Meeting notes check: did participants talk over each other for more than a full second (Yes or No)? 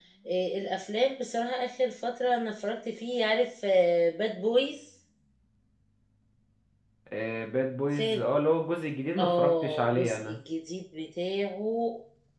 Yes